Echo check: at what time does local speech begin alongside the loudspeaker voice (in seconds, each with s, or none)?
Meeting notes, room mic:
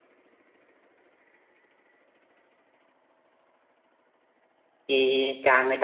4.9 s